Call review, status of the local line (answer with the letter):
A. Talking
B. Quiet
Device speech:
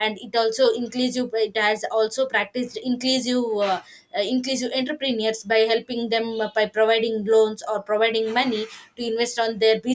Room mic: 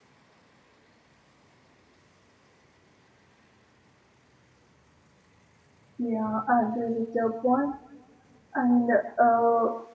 A